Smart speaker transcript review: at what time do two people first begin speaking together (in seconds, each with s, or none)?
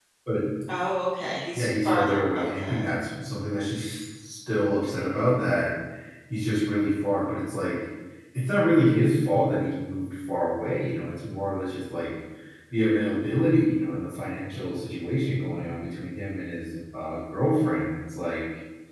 1.5 s